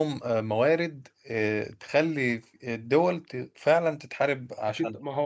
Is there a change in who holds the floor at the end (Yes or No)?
Yes